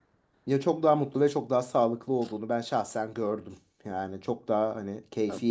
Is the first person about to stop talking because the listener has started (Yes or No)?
No